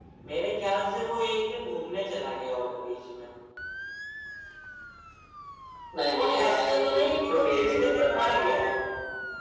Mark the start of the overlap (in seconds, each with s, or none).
6.1 s